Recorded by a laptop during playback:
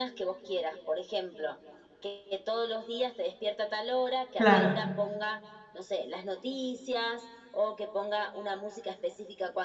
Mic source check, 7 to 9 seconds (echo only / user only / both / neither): echo only